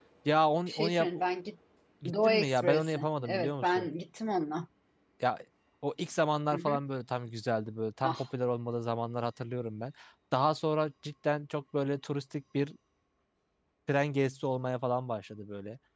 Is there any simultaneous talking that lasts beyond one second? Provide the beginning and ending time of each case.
2.1-3.9

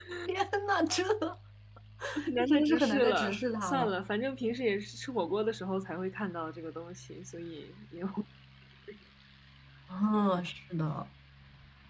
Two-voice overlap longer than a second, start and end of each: 2.4-3.9

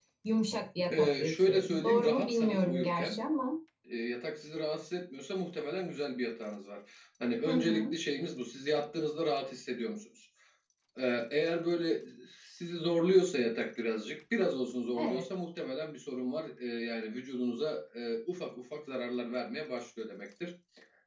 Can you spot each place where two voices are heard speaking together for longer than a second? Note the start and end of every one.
0.9-3.2

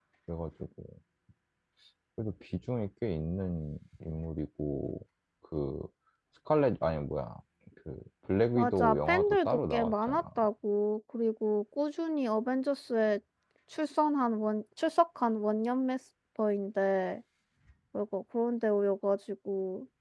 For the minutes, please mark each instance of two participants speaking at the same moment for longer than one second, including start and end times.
8.6-10.2

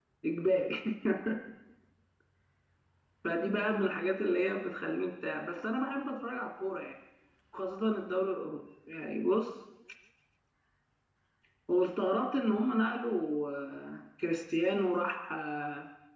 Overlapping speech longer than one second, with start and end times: none

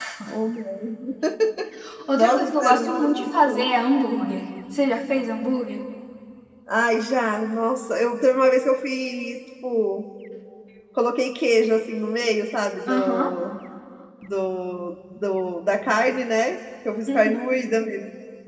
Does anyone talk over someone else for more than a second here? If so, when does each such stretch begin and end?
2.2-3.8

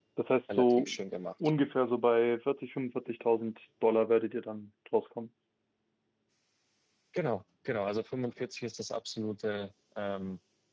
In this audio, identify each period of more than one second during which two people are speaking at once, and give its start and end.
none

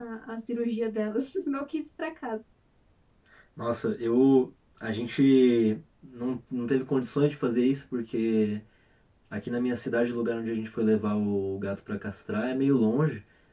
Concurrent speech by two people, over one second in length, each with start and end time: none

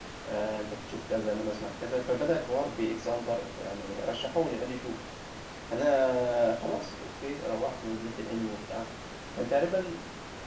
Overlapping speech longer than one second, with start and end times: none

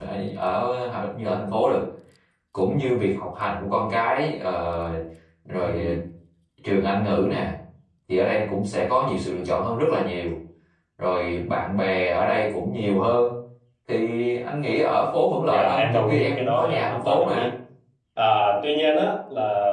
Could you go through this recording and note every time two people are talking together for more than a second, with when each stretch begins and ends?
15.5-17.5

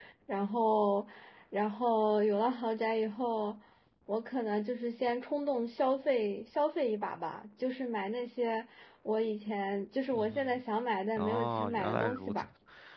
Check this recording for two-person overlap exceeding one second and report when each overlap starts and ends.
11.2-12.4

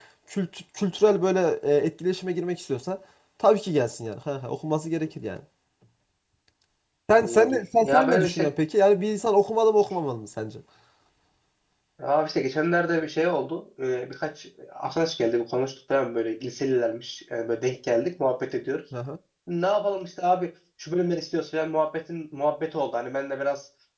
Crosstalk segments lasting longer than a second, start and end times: 7.1-8.5

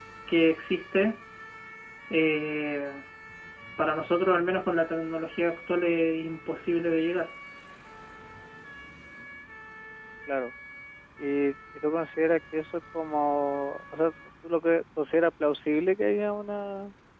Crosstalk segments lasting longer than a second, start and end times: none

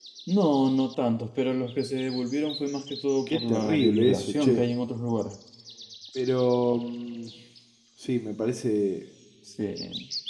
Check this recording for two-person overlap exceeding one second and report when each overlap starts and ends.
3.3-4.6

